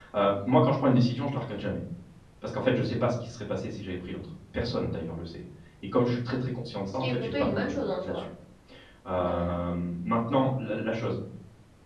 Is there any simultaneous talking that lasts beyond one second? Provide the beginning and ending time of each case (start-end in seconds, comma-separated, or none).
6.9-8.2